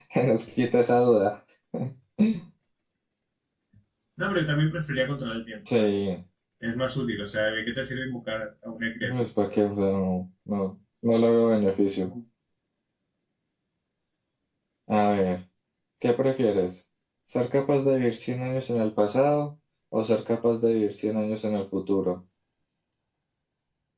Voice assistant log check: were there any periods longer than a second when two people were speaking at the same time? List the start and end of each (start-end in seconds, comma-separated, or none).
none